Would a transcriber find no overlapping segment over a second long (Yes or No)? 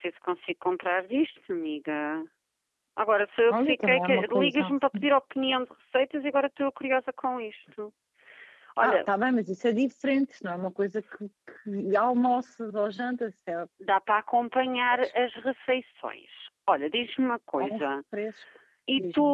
No